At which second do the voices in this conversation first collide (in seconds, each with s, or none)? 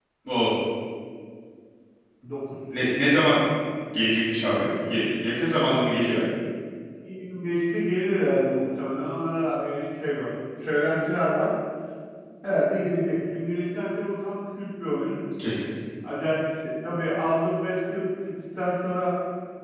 none